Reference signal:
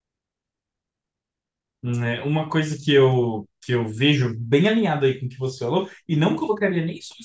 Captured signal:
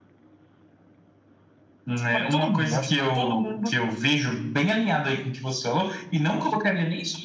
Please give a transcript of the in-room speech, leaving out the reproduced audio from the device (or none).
para todo mundo. Eu acho que todo mundo